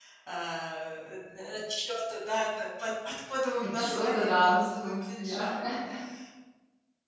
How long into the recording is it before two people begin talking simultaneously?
3.6 s

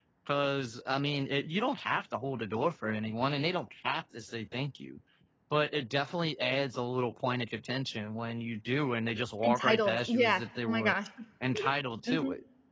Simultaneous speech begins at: 9.4 s

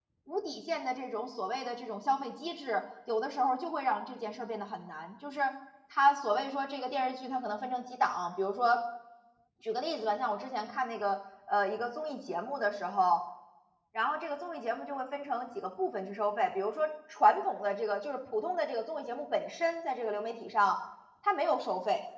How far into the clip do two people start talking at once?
none

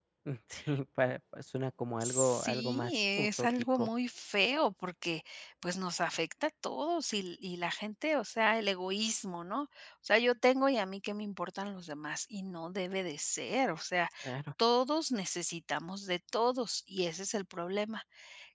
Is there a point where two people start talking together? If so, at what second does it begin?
2.0 s

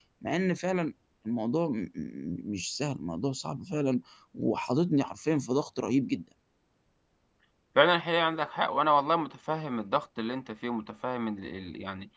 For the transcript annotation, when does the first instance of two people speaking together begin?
none

